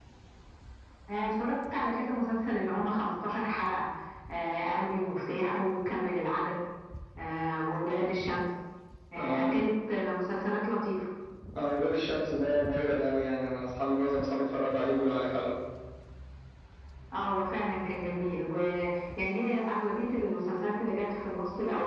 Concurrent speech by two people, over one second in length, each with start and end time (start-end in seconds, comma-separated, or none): none